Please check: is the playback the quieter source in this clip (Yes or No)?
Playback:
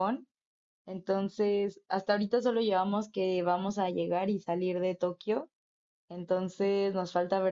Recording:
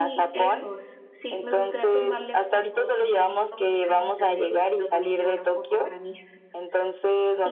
No